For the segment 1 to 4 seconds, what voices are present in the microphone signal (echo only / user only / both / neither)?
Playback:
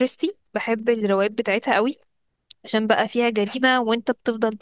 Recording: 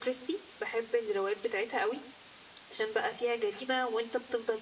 echo only